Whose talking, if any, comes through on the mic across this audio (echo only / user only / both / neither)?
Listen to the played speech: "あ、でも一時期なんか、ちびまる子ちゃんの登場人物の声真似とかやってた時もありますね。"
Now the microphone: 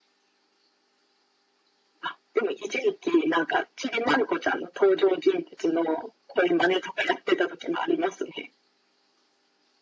echo only